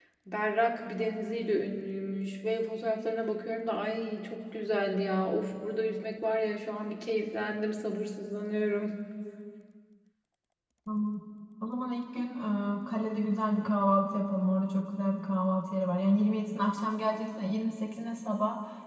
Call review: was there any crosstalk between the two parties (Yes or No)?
No